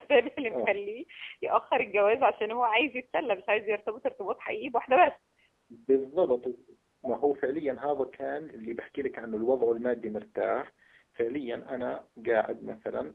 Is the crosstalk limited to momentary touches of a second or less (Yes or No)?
Yes